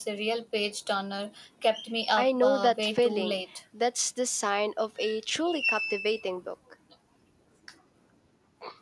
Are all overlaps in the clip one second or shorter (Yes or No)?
No